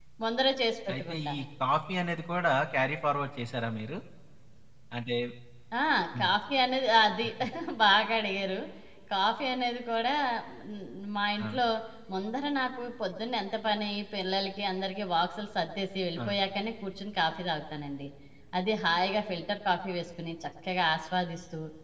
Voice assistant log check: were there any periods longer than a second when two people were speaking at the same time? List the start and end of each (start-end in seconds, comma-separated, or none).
none